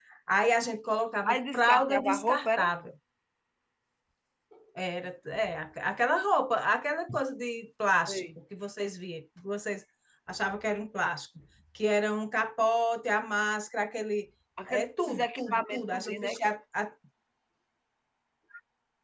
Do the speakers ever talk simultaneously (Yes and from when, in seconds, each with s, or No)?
Yes, from 1.2 s